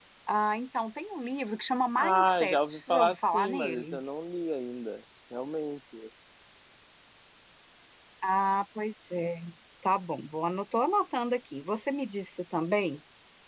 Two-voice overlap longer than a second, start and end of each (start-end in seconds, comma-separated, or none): 2.0-4.0